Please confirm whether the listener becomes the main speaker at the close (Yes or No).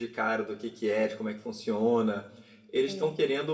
No